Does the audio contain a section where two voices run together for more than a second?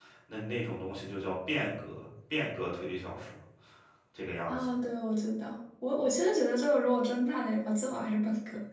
No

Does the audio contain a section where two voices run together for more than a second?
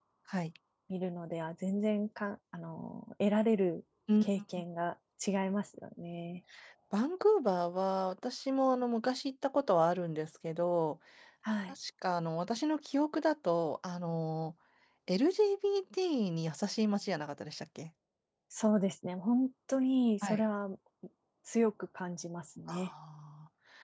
No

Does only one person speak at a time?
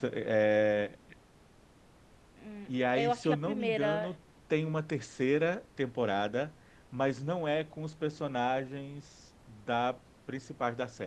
No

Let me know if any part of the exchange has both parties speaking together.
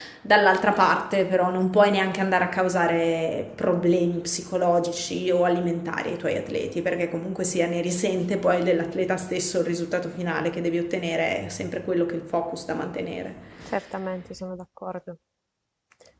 No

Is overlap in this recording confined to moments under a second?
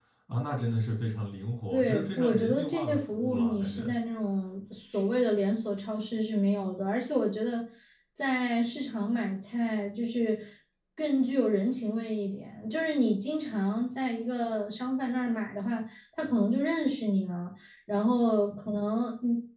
No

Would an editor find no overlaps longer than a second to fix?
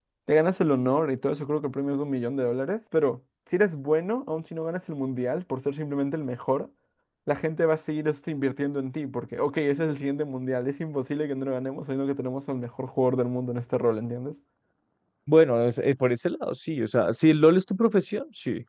Yes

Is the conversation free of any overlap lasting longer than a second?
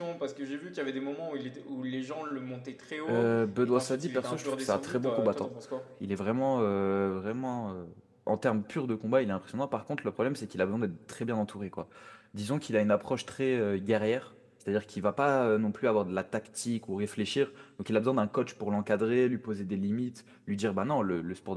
No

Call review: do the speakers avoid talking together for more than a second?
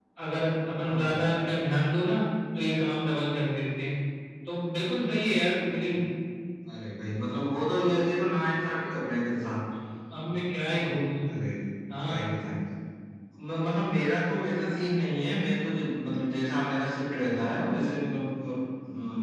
Yes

